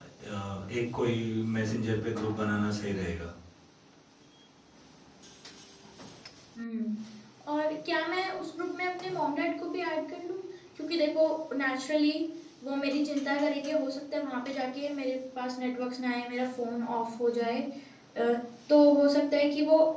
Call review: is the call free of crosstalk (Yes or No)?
Yes